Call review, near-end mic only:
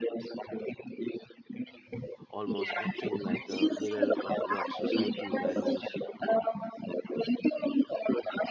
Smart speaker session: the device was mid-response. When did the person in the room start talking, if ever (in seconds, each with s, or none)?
2.3 s